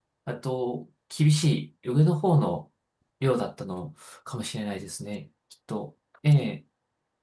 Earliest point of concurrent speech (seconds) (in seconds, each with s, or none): none